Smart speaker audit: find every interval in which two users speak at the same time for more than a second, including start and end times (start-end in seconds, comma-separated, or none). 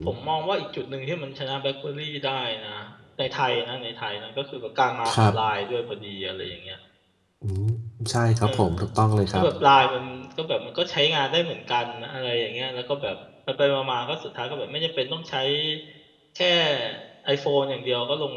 none